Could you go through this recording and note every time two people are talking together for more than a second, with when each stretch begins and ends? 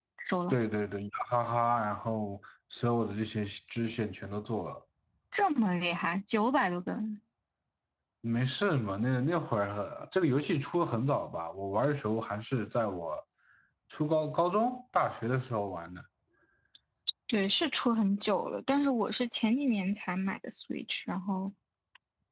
none

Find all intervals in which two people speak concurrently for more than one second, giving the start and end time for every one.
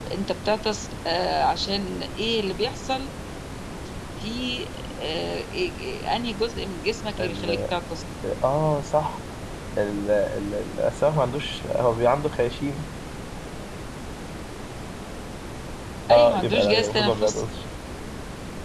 16.1-17.4

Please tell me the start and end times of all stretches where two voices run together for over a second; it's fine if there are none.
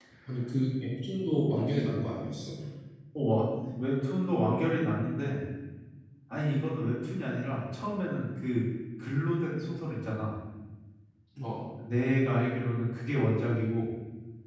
none

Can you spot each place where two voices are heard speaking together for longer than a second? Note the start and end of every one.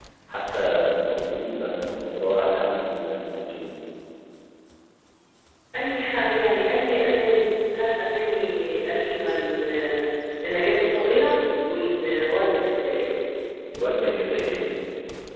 none

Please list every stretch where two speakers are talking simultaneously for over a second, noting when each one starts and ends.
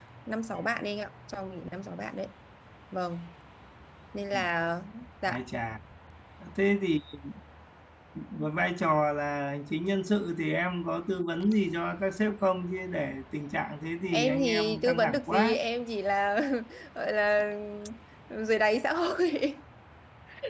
14.1-15.5

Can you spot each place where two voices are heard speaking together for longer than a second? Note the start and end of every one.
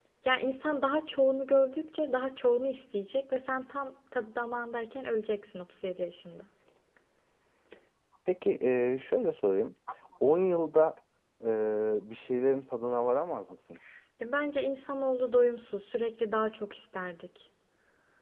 none

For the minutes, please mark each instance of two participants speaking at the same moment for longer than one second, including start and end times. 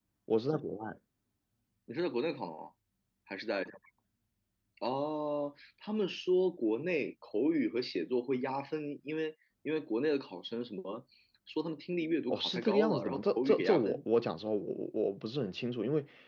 12.3-14.0

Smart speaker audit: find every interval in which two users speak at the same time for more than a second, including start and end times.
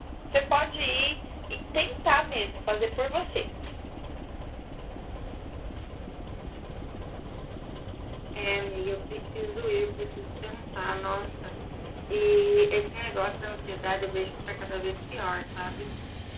none

